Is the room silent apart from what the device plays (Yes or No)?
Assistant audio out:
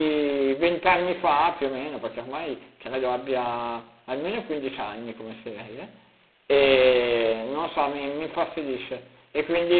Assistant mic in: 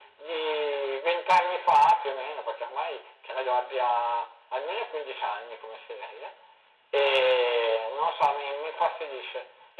Yes